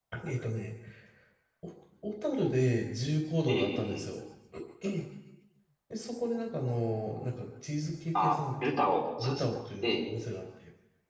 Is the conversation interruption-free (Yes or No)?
No